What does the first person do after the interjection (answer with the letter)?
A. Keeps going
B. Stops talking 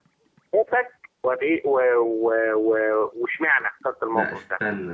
B